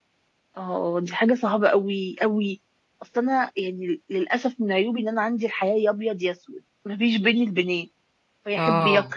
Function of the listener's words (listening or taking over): listening